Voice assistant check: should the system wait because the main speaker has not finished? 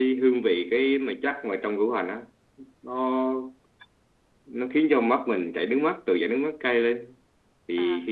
Yes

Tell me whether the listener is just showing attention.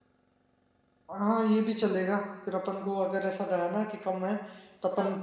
Yes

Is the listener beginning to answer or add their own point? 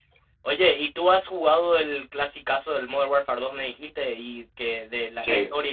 No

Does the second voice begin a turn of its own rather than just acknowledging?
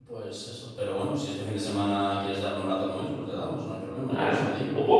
Yes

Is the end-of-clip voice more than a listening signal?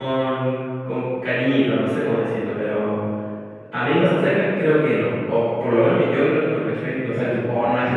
Yes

